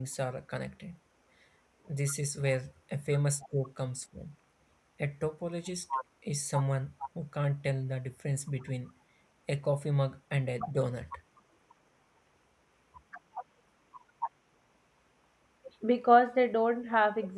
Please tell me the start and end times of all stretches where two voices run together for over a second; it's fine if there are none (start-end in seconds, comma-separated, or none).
none